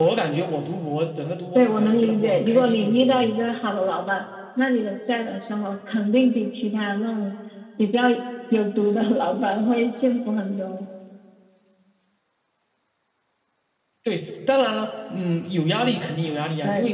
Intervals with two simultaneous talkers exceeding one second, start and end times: 1.5-3.3

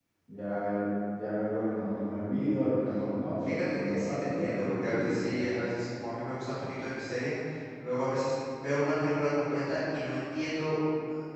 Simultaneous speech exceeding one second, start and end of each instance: 3.5-5.3

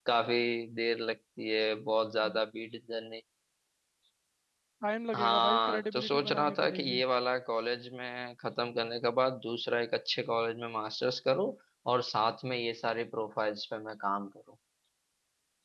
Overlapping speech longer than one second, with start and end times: 5.1-7.0

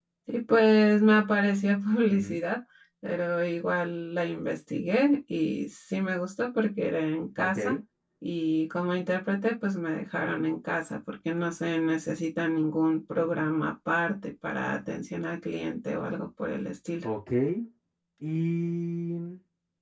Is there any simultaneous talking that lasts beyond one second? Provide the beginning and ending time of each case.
none

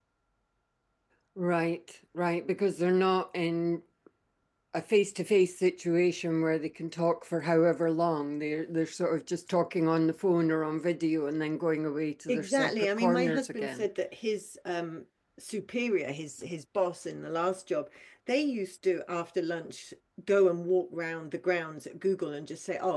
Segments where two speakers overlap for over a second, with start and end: 12.3-13.8

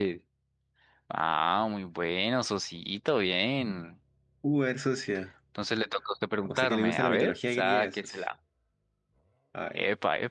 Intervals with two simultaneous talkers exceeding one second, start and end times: 6.5-8.2

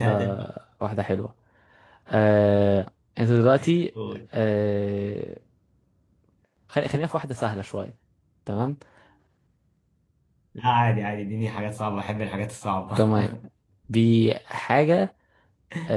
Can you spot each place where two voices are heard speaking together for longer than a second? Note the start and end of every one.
none

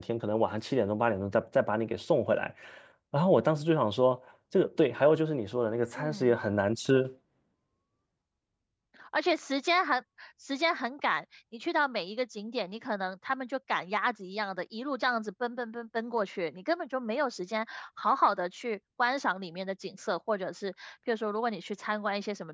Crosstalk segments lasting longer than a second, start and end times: none

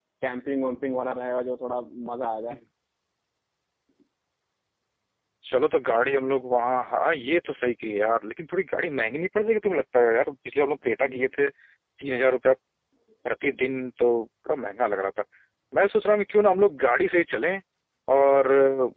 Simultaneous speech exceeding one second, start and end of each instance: none

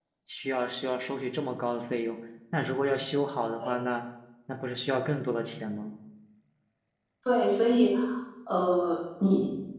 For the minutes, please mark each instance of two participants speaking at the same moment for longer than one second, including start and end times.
none

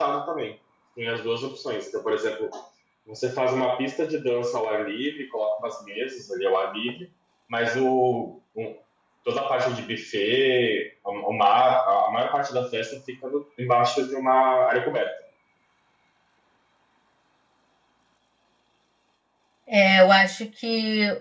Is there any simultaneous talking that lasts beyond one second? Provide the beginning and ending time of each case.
none

